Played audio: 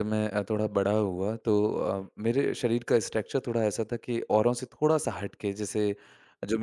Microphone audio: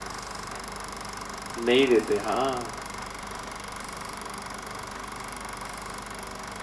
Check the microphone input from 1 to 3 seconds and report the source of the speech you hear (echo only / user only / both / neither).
user only